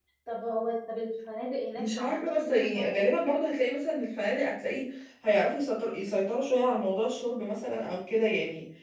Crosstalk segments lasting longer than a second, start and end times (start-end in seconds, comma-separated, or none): 1.8-3.1